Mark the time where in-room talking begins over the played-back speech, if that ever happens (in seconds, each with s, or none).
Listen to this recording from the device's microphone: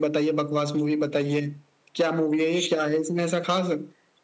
none